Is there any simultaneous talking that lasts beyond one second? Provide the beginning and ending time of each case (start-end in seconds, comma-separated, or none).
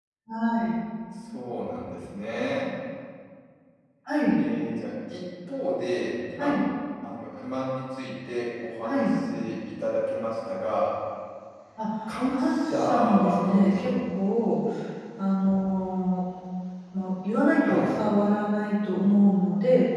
12.3-13.9